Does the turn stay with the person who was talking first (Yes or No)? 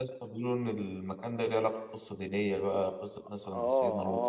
No